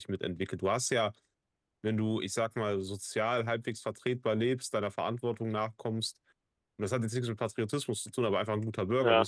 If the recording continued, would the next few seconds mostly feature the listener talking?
No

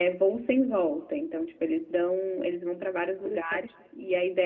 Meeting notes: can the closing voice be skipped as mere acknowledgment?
Yes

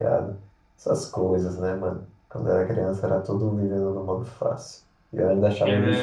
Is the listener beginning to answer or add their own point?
Yes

